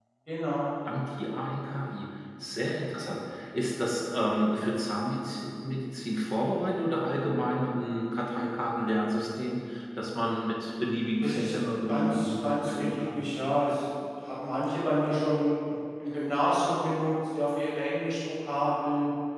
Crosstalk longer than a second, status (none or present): present